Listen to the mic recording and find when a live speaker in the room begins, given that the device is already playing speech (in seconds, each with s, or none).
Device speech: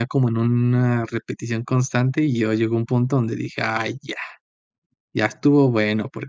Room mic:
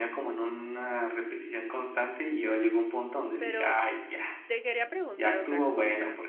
3.4 s